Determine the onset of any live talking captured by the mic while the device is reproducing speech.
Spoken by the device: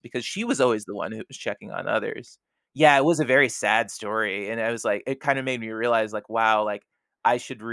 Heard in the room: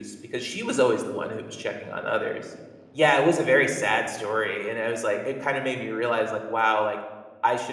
none

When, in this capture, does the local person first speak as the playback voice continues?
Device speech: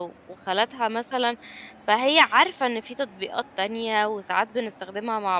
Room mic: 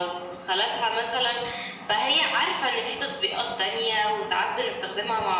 none

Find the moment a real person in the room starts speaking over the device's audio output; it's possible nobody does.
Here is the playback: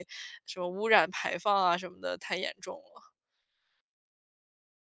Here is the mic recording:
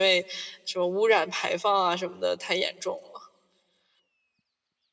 none

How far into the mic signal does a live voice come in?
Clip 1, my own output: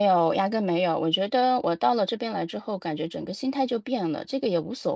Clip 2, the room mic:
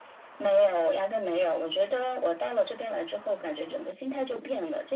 none

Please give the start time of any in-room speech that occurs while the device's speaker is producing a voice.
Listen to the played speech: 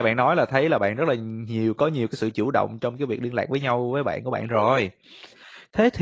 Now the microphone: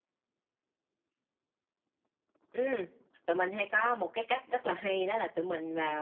2.5 s

